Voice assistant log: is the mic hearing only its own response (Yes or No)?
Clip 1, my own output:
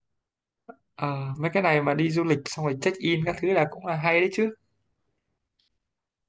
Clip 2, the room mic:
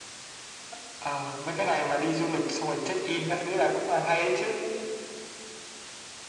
Yes